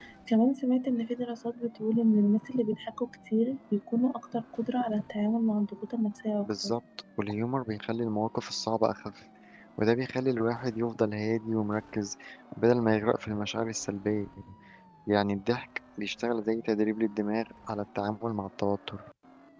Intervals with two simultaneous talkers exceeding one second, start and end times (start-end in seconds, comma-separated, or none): none